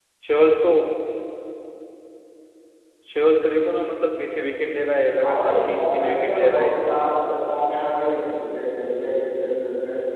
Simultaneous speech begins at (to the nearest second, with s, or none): 5 s